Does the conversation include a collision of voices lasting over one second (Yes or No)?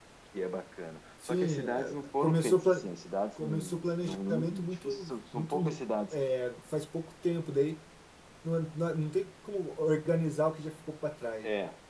Yes